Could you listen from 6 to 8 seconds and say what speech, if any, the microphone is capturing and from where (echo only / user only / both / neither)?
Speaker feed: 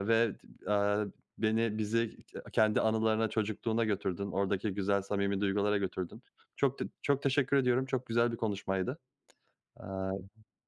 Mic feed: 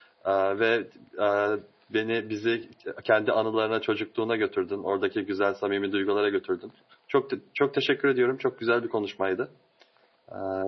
echo only